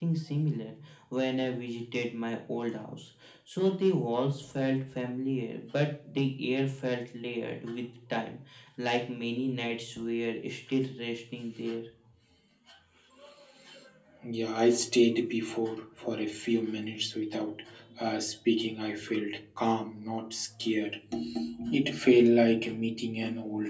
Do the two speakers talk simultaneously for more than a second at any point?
No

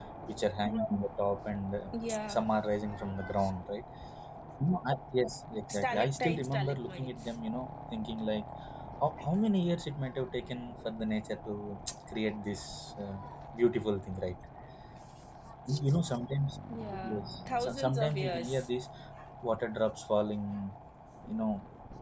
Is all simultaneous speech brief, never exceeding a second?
No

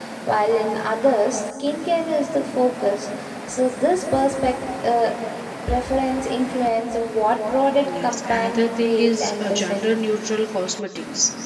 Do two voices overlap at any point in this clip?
Yes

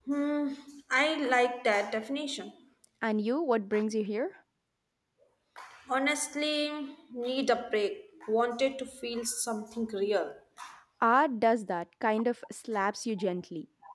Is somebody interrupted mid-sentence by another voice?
No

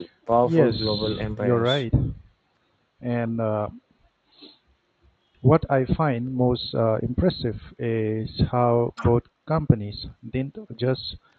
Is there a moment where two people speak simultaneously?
Yes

